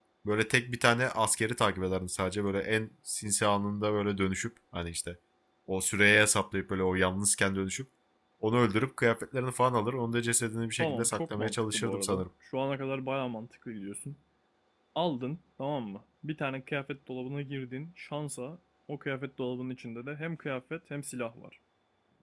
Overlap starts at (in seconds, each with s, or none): 10.8 s